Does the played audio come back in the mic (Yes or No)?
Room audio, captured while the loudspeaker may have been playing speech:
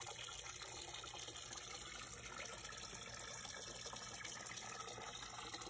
No